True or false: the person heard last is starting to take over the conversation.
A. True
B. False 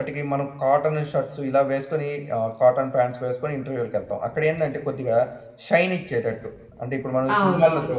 A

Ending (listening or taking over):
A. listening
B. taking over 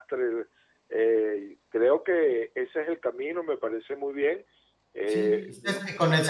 B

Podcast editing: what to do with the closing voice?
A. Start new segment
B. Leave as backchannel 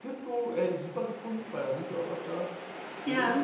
A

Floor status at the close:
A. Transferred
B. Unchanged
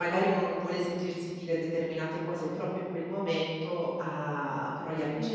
A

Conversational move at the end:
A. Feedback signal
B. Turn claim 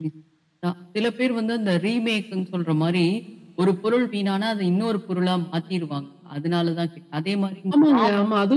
B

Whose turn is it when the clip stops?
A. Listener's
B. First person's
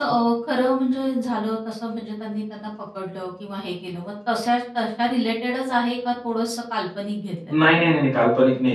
A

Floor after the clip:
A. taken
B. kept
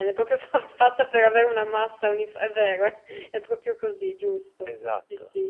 A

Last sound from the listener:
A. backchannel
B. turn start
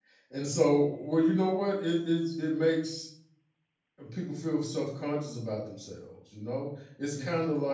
A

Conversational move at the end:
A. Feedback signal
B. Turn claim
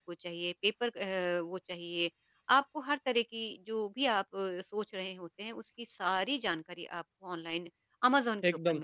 B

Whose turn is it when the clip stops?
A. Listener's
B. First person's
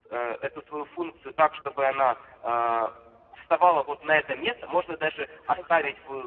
B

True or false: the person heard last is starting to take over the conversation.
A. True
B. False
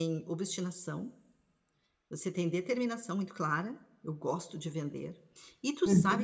B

